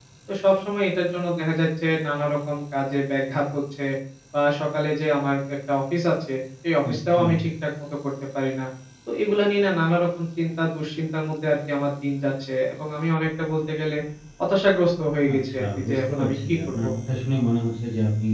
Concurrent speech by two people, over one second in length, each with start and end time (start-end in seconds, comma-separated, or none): 15.3-16.8